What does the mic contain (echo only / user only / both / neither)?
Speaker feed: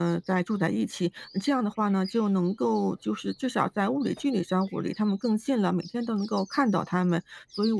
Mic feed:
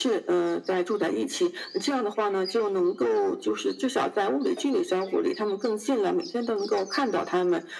echo only